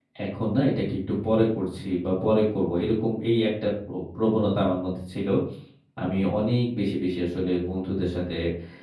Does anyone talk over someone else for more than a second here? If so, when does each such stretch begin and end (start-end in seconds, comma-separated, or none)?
none